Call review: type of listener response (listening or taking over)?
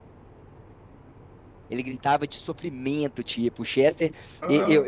listening